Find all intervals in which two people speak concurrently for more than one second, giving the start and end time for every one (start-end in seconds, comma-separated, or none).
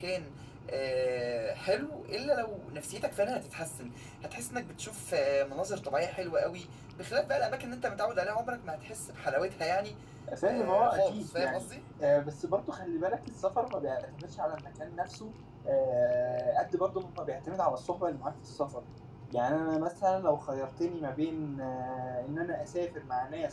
10.4-11.7